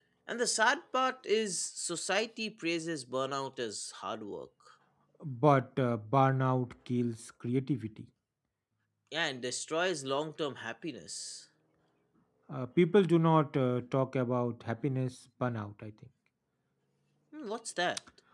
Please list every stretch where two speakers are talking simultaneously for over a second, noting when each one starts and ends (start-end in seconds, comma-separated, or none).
none